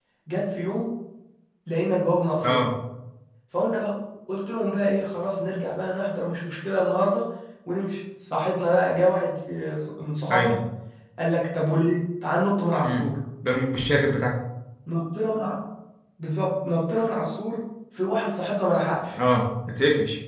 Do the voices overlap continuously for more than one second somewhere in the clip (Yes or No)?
No